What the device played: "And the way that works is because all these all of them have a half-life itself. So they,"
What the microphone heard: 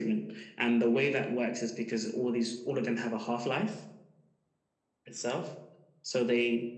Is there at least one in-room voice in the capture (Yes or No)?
No